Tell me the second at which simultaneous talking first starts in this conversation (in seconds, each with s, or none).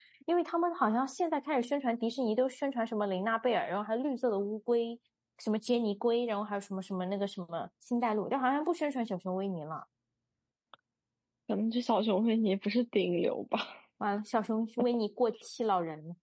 none